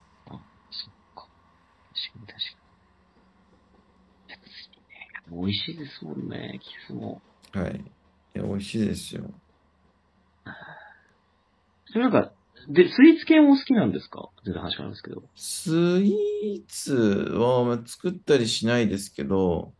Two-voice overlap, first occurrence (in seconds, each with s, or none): none